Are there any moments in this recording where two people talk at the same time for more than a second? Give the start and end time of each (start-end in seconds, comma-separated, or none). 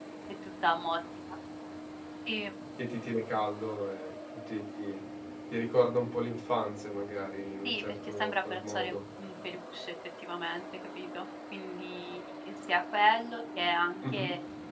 7.6-9.0